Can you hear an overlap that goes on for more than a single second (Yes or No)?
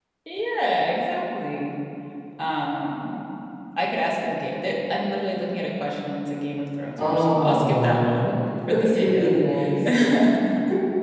Yes